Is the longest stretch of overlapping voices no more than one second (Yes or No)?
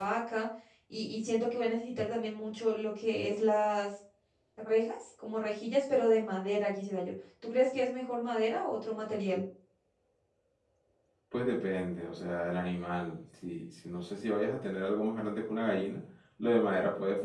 Yes